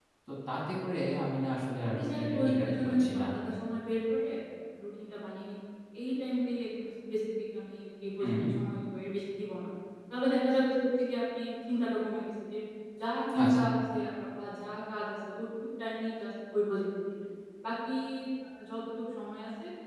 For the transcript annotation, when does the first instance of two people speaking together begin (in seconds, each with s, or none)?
2.0 s